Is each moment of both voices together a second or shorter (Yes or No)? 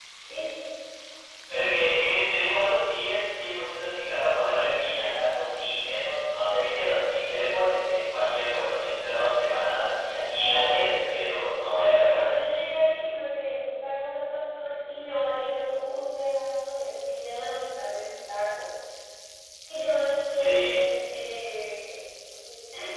Yes